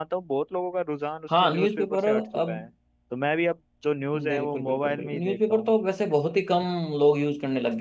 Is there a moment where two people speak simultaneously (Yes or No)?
Yes